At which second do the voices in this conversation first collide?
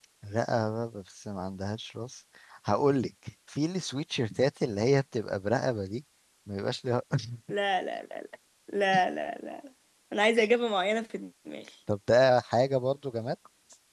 none

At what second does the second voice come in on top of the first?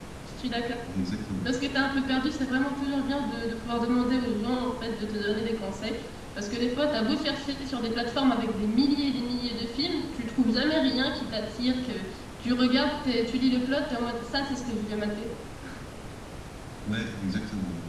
none

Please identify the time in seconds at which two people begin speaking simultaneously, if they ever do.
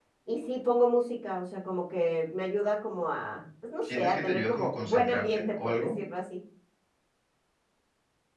3.8 s

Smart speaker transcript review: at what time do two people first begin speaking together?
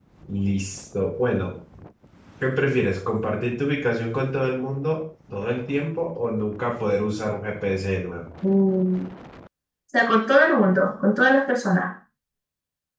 none

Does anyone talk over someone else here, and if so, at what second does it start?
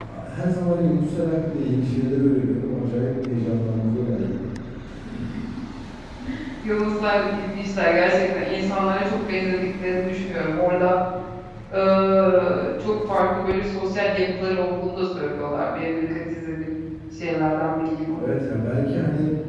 none

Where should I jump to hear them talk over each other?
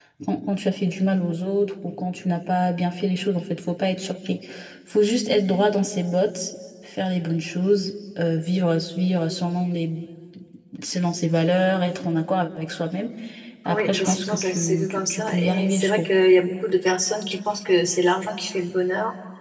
13.6 s

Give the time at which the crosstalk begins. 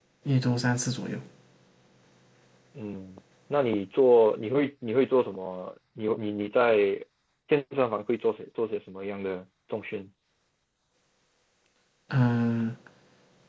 none

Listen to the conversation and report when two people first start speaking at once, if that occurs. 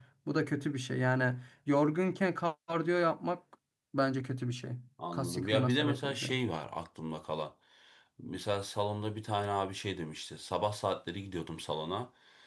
5.1 s

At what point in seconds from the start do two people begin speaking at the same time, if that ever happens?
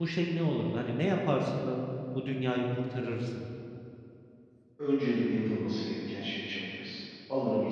none

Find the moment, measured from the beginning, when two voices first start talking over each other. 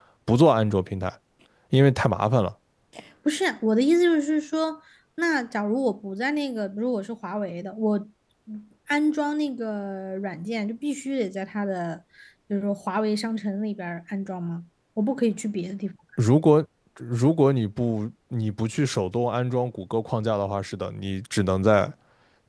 none

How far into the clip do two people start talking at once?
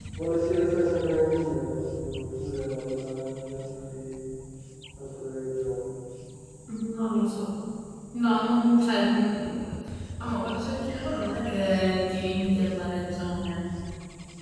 none

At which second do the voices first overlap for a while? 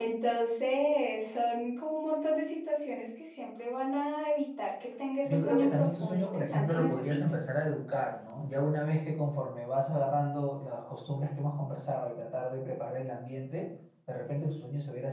5.2 s

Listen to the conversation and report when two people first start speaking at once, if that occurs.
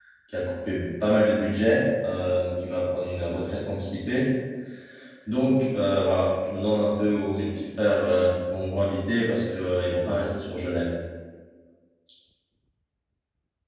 none

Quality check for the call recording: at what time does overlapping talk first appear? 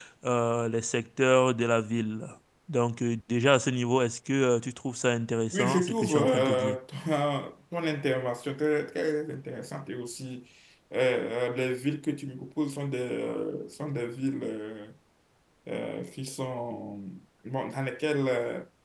5.5 s

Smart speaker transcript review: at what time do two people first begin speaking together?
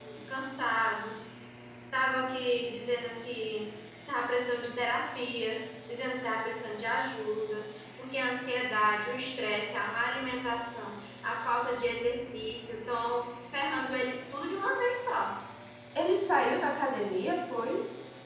none

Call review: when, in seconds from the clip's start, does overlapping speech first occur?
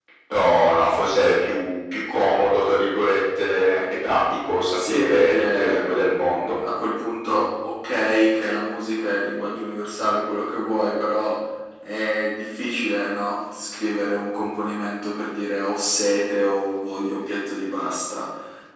4.7 s

